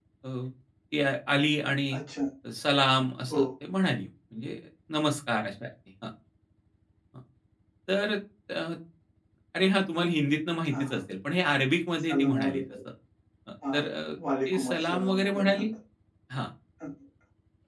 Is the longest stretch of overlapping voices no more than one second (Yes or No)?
No